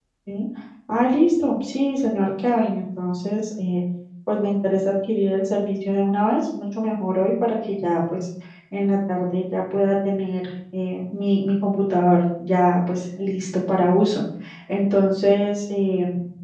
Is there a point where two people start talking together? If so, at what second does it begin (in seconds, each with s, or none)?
none